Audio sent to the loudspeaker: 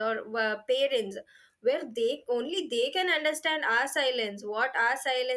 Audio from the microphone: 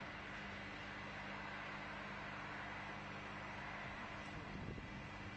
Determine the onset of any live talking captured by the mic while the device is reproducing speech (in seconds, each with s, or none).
none